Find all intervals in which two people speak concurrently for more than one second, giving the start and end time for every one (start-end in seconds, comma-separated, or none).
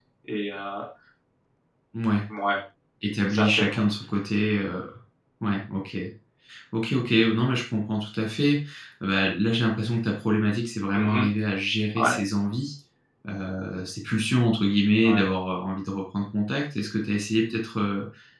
none